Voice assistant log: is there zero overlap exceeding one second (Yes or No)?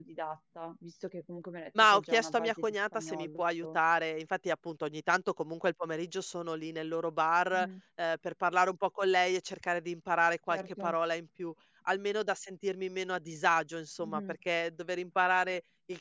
No